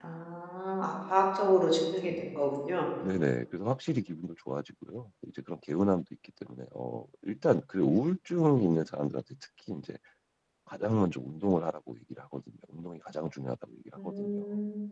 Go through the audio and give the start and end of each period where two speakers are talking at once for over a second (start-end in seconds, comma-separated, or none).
none